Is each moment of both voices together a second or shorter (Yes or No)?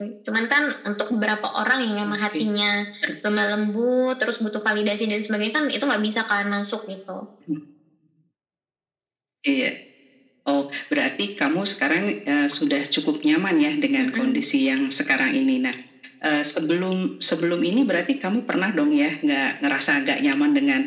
Yes